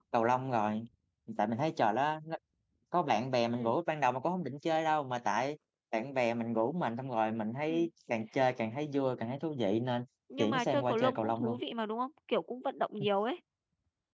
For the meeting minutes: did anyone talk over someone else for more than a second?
Yes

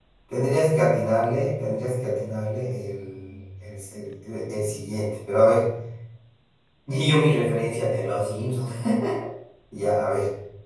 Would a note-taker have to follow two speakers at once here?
No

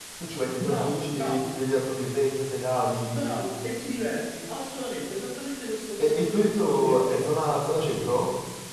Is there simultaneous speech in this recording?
Yes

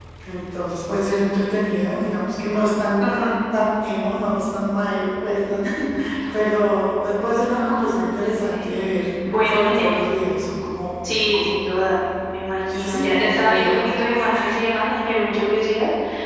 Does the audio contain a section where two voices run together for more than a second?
Yes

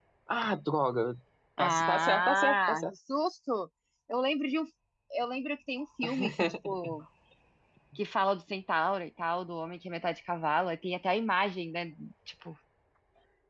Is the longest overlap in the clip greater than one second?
Yes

